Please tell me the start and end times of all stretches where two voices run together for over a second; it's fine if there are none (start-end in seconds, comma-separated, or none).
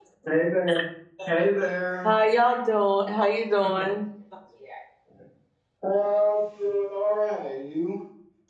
none